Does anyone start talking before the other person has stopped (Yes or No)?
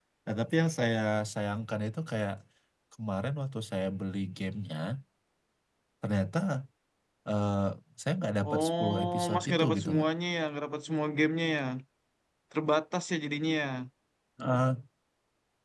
Yes